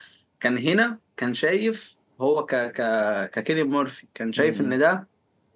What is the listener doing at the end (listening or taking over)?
listening